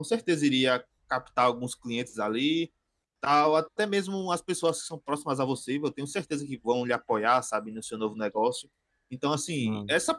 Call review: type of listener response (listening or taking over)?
listening